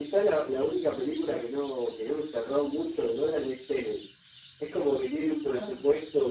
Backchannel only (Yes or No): Yes